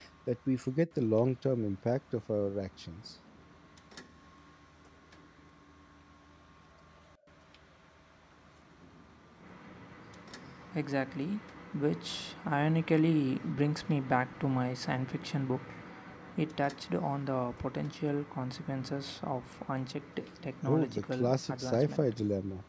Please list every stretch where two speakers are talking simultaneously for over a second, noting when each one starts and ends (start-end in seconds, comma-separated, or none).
20.7-22.0